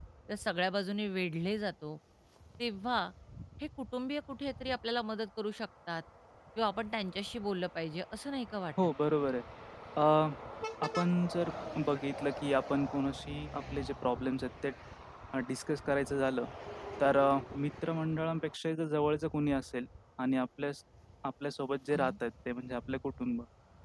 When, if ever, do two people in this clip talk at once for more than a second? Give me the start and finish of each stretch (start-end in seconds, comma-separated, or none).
none